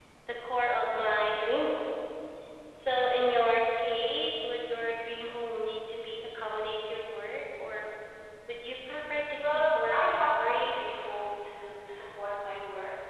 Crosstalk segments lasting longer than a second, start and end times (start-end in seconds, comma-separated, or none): 9.5-10.7